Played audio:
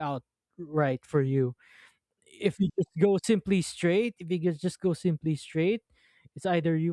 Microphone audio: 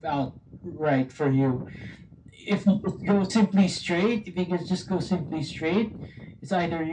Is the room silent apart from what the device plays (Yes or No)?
Yes